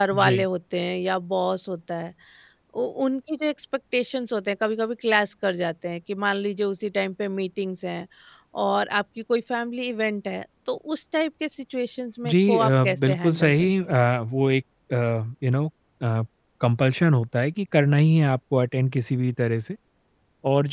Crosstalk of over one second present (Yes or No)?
Yes